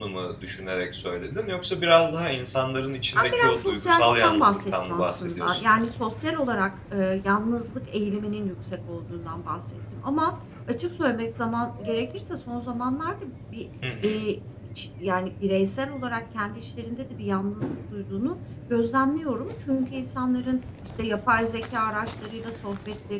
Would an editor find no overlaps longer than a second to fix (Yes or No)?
No